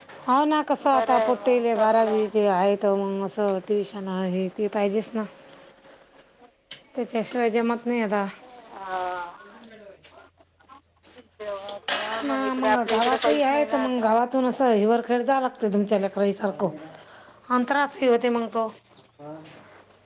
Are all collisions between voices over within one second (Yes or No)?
No